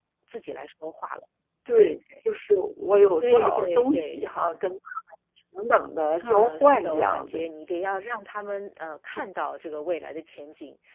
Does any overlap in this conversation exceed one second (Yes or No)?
Yes